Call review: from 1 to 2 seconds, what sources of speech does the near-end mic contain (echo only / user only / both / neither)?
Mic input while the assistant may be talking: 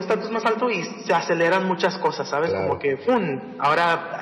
echo only